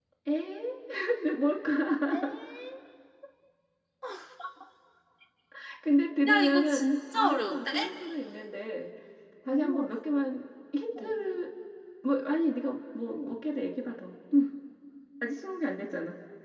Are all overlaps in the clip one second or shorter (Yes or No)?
No